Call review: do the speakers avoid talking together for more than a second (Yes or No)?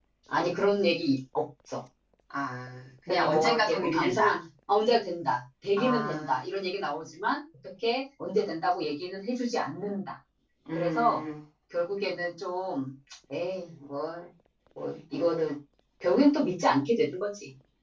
No